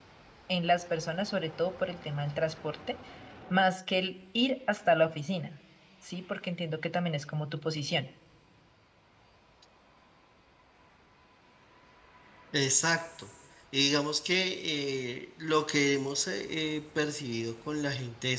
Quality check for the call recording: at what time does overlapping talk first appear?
none

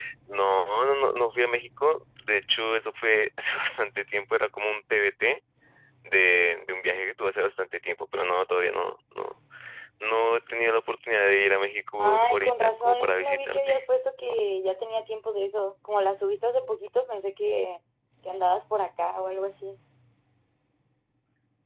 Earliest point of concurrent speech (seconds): 12.0 s

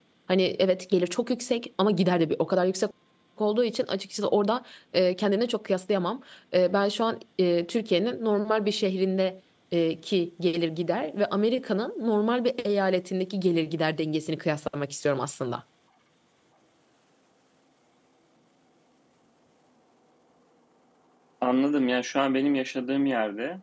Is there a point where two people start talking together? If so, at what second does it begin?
none

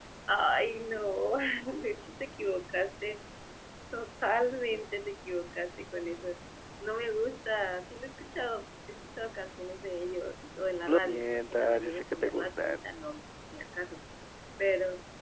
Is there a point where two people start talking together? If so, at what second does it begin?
10.9 s

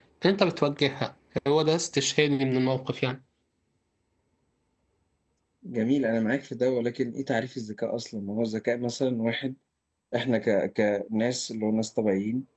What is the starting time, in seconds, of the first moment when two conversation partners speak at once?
none

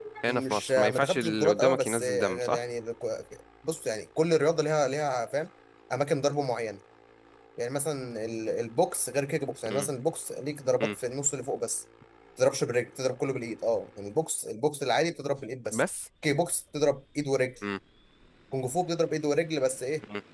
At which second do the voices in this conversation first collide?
0.5 s

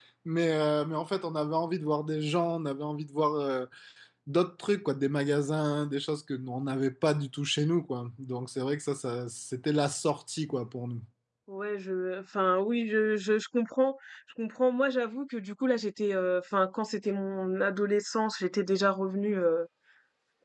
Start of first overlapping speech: none

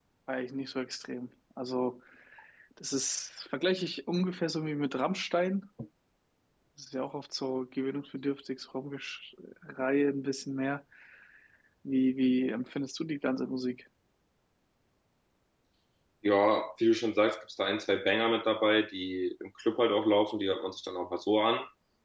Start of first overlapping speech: none

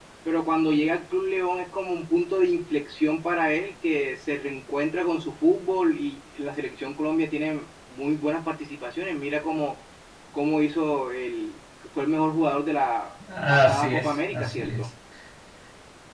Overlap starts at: 13.3 s

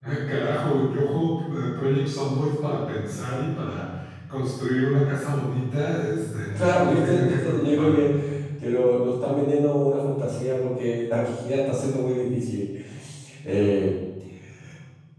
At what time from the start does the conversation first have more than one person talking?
6.5 s

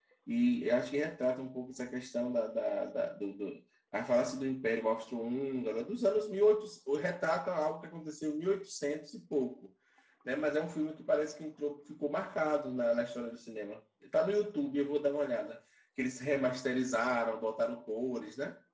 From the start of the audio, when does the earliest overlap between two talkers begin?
none

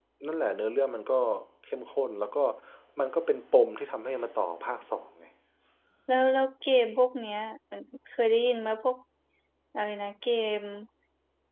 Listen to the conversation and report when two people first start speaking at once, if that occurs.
none

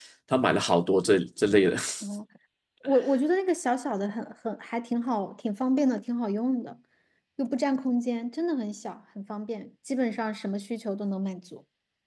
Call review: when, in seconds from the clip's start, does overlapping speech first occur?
none

